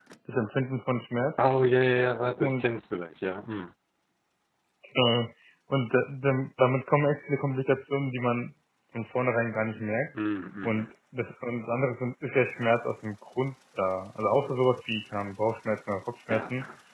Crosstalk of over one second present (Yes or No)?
No